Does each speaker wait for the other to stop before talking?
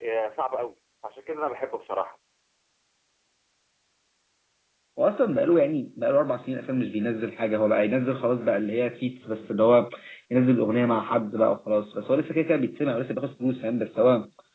Yes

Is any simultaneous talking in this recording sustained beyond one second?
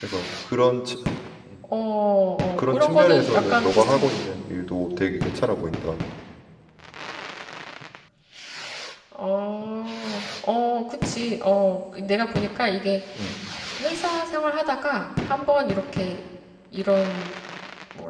Yes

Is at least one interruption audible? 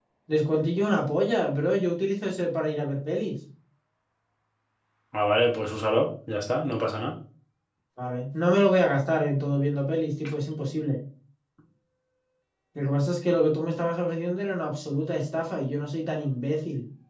No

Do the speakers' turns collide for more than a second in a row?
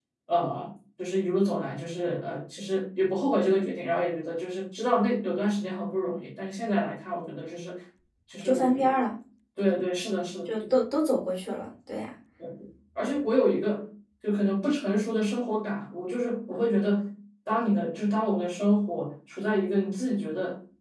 No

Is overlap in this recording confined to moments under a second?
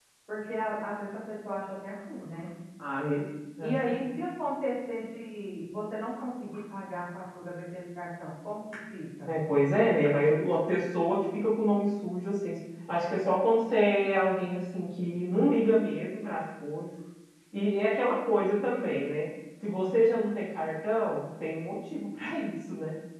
Yes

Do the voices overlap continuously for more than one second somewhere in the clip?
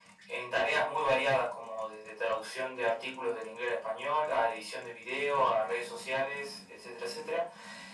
No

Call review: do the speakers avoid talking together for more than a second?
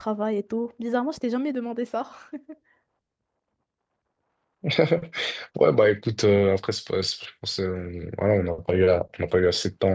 Yes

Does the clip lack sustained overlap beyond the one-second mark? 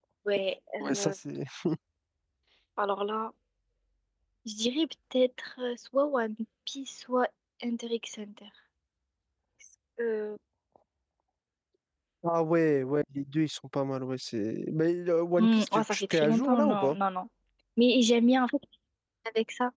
No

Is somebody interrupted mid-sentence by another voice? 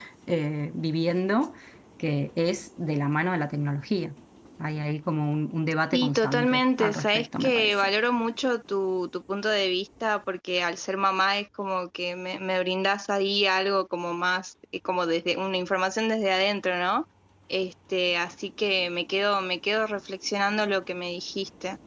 Yes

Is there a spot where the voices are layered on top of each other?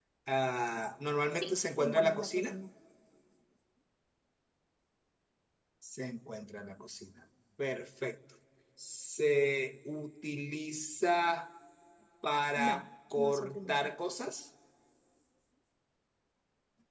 Yes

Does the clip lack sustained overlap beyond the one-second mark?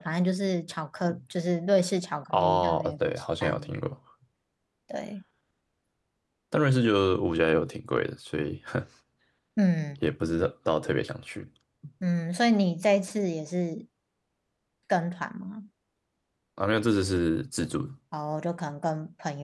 No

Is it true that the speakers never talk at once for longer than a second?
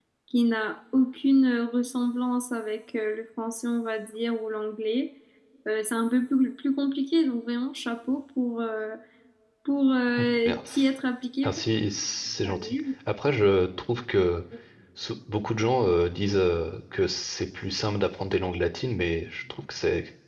Yes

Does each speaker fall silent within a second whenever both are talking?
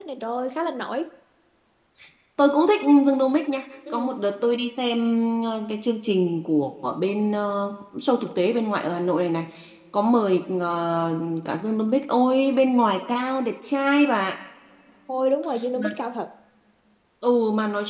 Yes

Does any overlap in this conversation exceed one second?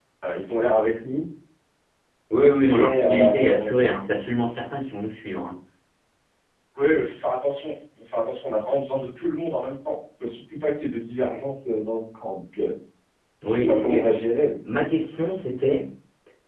Yes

